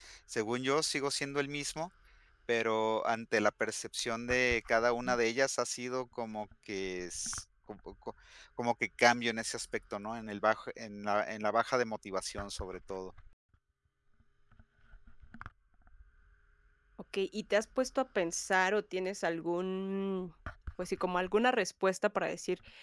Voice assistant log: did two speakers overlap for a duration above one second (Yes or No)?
No